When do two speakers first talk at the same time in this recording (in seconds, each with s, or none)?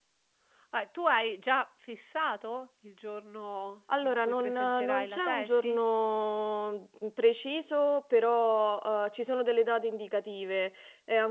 3.9 s